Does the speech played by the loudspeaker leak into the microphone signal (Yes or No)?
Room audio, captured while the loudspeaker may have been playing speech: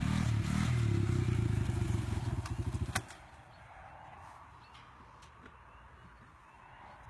No